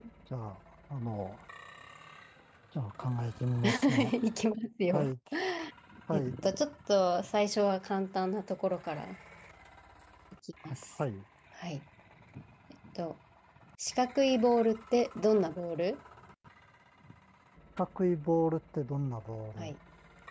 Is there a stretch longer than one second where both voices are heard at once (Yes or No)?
No